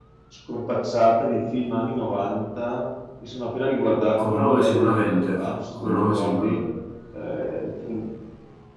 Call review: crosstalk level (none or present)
present